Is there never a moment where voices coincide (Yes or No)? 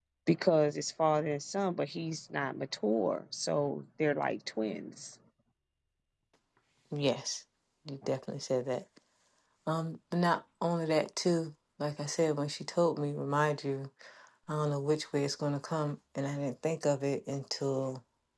Yes